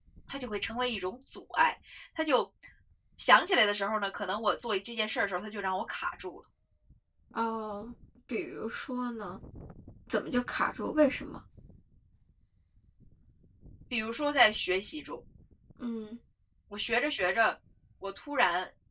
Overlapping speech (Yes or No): No